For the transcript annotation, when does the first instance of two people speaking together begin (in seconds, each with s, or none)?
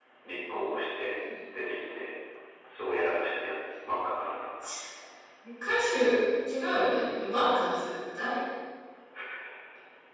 none